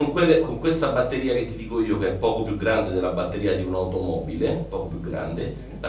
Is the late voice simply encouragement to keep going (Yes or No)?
Yes